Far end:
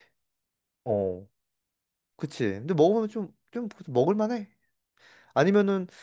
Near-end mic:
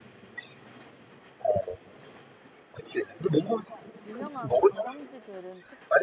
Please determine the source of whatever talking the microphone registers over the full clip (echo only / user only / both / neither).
both